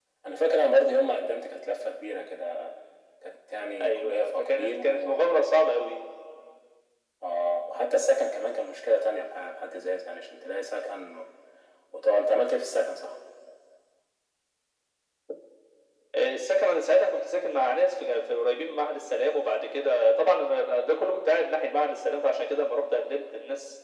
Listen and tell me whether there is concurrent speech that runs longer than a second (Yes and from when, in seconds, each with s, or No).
Yes, from 3.8 s